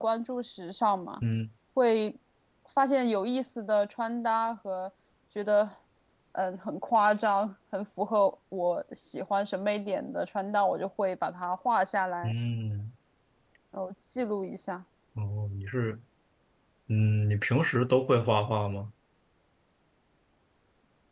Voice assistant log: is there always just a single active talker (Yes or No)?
Yes